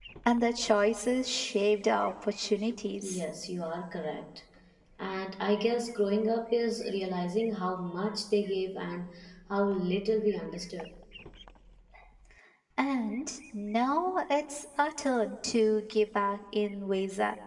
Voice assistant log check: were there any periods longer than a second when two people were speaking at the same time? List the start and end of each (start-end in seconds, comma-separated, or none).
none